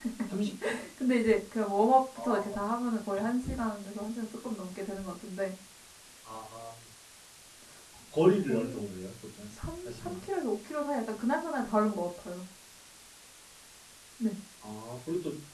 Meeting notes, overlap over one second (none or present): none